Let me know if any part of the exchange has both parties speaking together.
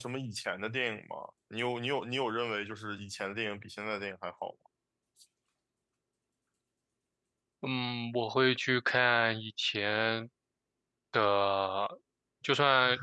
No

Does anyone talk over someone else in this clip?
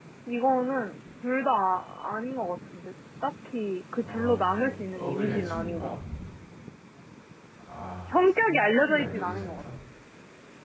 Yes, from 4.0 s

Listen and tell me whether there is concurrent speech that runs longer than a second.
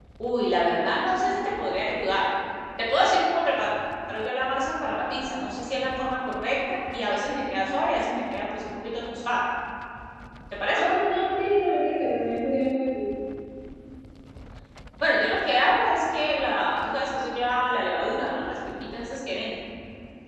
No

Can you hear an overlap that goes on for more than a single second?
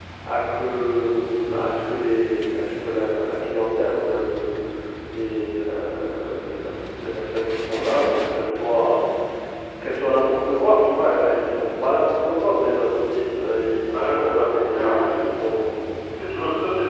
Yes, from 14.0 s

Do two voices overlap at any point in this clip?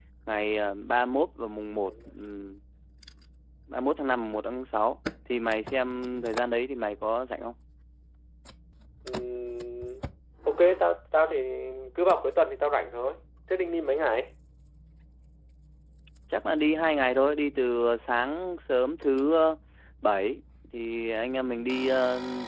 No

